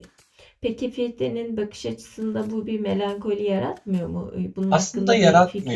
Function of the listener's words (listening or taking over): taking over